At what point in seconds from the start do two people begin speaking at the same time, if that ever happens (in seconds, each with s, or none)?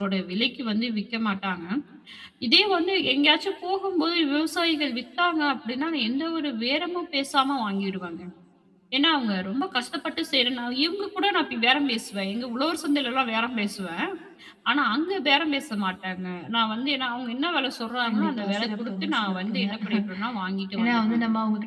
18.0 s